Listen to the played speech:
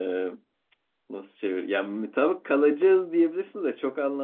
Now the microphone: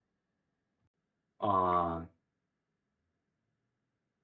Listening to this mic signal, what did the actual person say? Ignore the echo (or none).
Aa,